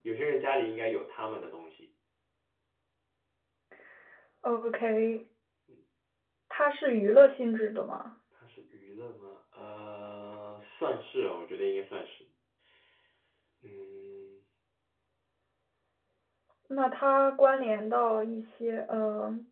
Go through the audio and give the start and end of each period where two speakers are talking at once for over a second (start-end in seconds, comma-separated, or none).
none